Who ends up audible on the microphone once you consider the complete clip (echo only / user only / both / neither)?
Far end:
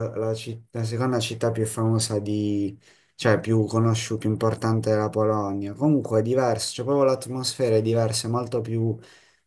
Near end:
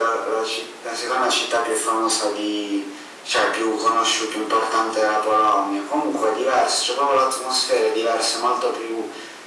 echo only